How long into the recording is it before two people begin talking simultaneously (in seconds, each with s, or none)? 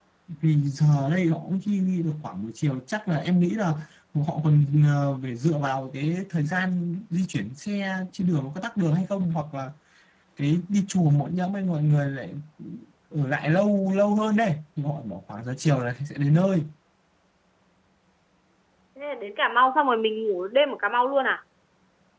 none